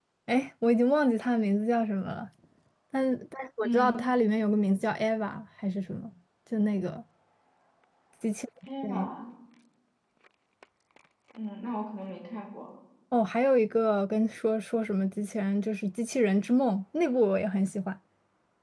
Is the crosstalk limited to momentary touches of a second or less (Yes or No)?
Yes